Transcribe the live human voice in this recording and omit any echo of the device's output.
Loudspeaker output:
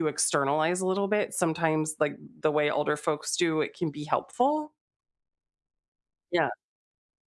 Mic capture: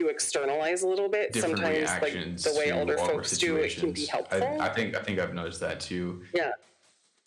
different reactions to awkward situations. I I think I think I've noticed that to

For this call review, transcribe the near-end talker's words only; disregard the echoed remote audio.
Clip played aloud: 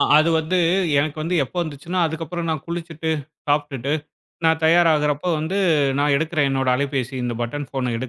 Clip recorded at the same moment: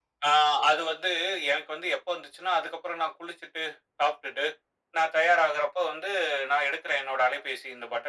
none

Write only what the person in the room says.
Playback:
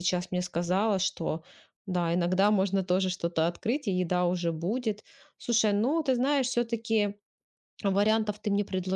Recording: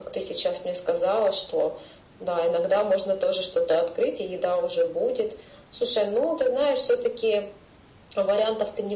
none

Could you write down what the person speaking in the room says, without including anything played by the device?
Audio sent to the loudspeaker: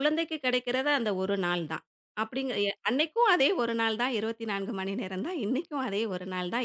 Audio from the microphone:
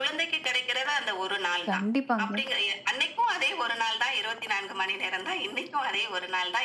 கண்டிப்பாங்க.

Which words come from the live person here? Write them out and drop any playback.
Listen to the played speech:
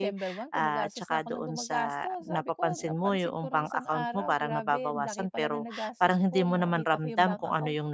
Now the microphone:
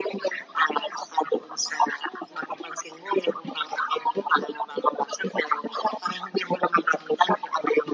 none

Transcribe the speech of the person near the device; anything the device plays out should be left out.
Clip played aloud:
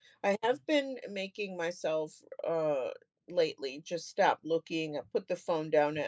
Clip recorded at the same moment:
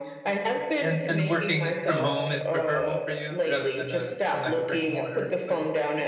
and and working from home is preferable for you rather than, uh, in, like, a brick and mortar place?

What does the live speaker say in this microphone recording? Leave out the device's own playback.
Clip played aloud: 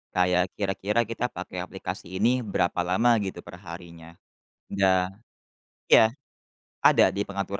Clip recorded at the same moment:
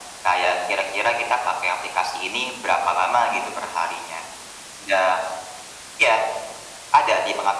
none

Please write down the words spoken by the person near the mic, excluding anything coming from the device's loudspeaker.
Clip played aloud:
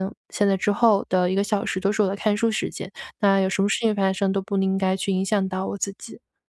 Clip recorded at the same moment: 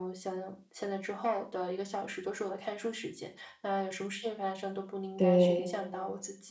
对。

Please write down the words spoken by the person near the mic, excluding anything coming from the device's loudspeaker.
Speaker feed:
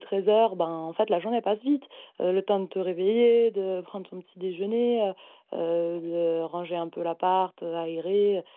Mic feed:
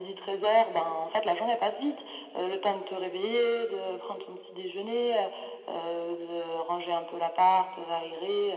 none

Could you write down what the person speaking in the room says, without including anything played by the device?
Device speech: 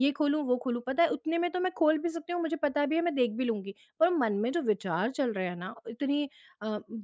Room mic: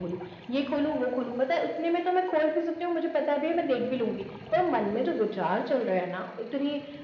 none

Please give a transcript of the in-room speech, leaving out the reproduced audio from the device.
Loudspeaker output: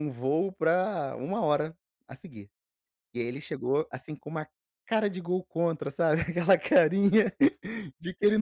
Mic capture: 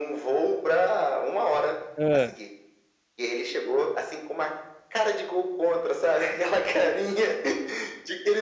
Hã.

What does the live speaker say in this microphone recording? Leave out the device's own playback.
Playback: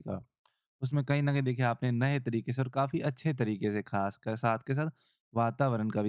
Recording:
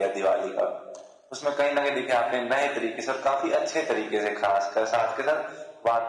none

